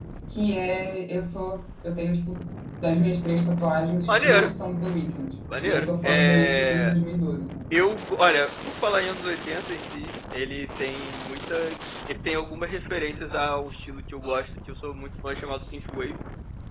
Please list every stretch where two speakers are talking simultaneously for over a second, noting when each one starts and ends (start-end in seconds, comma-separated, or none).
5.6-6.9